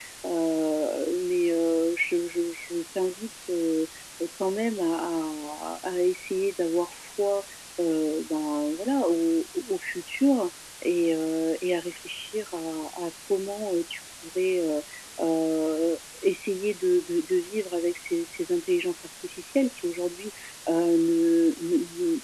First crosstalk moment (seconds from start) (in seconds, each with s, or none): none